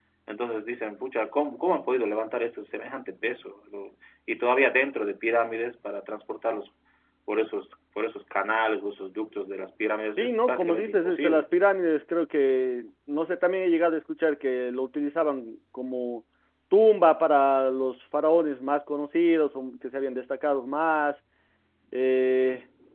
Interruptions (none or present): present